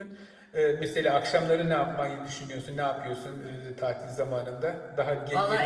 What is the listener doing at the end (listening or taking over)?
taking over